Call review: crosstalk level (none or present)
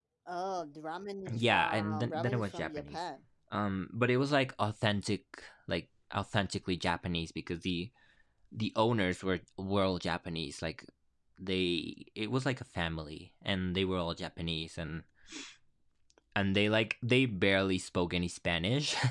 present